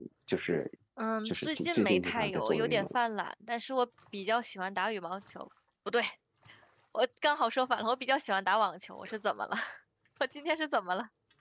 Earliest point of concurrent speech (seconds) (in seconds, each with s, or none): 1.2 s